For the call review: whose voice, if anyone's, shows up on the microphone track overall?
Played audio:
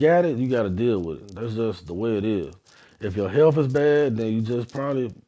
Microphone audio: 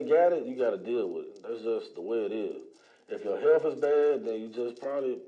echo only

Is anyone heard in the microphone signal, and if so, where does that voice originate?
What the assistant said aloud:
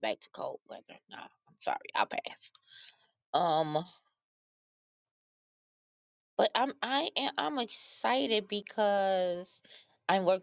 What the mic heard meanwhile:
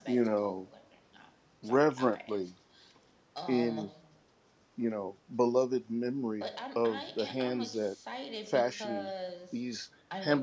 both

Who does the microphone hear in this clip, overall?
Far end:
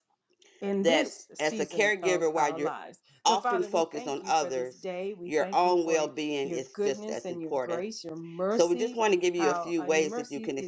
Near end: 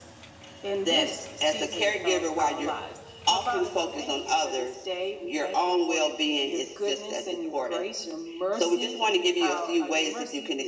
echo only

